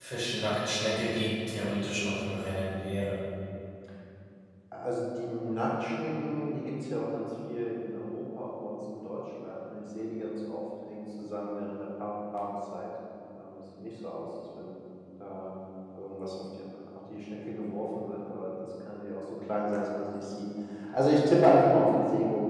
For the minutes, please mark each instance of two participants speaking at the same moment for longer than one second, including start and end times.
none

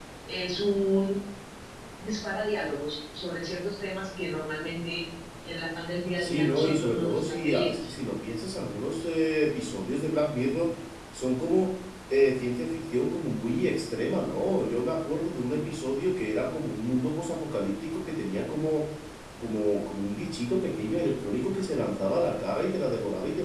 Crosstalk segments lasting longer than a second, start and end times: 6.2-7.9

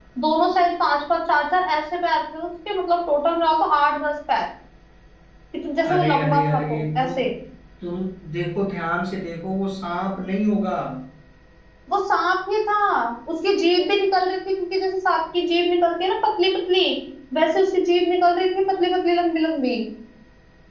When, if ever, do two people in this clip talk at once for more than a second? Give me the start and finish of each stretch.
5.9-7.1

